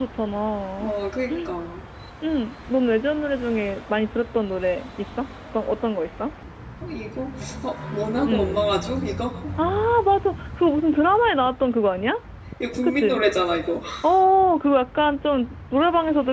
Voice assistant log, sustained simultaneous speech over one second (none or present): none